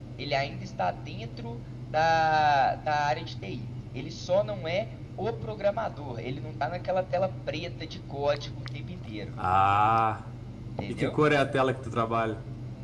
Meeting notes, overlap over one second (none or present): none